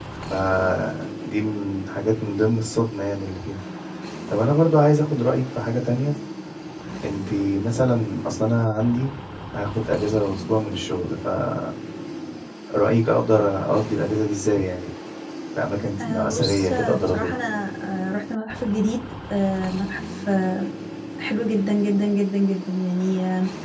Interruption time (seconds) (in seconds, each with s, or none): 16.0 s